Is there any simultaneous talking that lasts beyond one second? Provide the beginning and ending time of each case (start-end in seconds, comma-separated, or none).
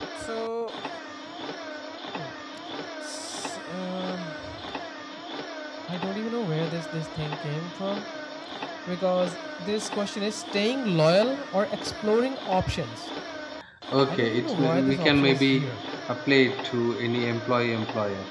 14.1-15.7